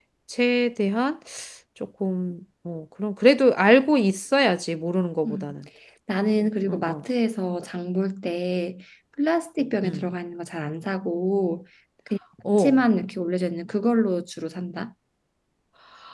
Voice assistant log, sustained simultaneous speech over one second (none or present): none